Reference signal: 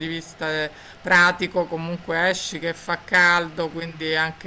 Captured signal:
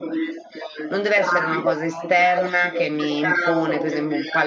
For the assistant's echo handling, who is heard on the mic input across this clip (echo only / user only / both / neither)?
both